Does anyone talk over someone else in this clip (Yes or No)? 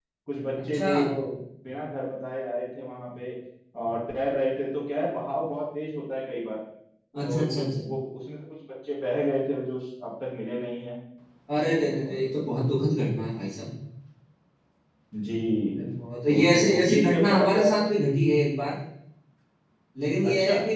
Yes